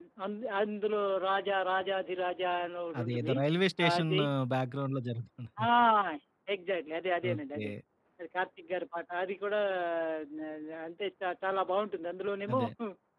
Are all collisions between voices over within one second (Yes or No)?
Yes